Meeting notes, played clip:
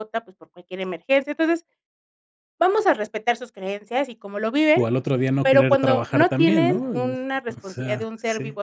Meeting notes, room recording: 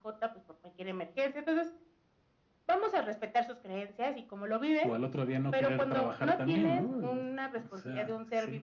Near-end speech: none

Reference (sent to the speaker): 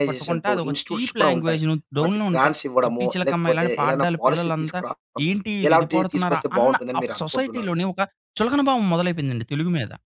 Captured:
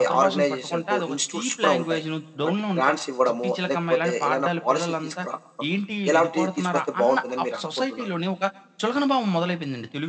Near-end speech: none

